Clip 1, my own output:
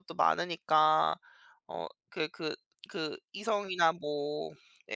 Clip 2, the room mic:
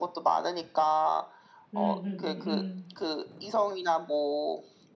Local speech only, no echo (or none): 음음음음.